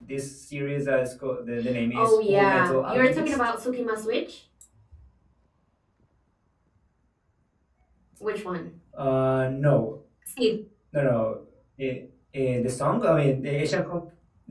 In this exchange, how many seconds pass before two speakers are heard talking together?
1.9 s

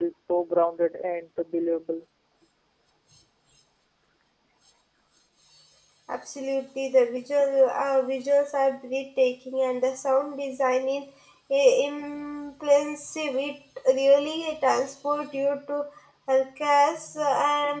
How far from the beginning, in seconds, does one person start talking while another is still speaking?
none

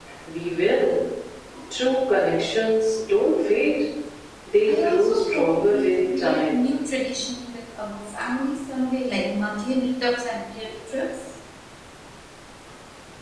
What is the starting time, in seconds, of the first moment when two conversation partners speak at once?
4.7 s

